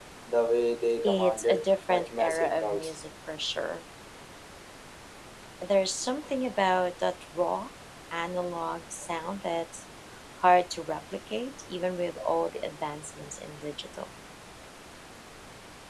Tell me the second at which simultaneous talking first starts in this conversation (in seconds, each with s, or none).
1.0 s